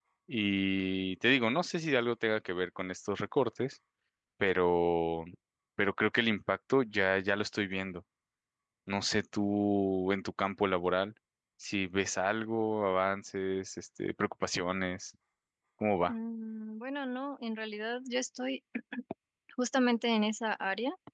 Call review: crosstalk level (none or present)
none